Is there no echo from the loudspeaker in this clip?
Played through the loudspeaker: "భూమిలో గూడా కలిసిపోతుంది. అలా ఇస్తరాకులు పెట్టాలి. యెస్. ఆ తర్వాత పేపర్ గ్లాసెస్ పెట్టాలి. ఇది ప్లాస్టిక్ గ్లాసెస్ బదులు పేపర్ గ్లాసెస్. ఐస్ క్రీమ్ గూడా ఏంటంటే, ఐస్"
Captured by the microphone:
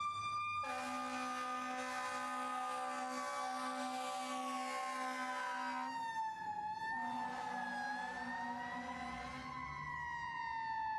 Yes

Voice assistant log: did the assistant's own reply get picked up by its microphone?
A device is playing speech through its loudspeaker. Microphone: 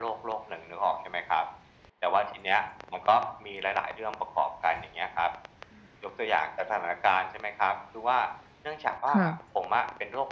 Yes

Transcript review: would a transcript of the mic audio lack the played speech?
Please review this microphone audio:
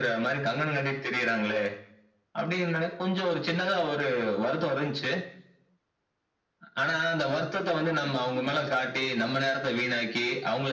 No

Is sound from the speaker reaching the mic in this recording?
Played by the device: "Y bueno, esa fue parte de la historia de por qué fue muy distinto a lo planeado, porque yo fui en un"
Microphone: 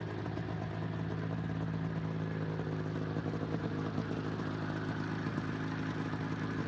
No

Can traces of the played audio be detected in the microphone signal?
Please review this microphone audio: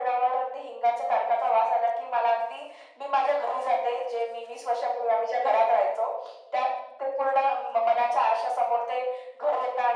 Yes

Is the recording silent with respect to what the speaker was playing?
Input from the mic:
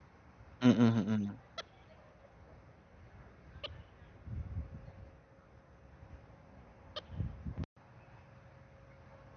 Yes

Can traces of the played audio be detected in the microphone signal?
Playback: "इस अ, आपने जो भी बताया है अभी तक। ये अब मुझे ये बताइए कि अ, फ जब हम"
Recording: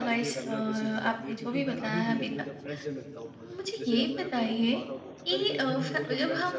Yes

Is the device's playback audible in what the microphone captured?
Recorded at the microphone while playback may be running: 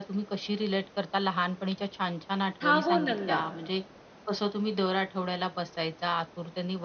Yes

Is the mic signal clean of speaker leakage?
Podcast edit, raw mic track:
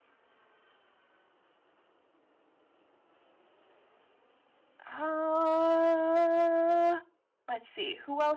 Yes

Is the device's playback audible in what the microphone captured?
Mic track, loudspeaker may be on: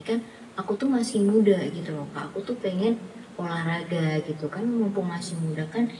No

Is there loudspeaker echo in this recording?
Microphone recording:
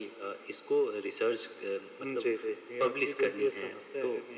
Yes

